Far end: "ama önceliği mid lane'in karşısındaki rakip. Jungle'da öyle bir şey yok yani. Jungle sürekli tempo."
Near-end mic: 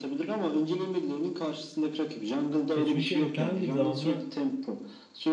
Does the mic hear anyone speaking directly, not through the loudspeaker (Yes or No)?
Yes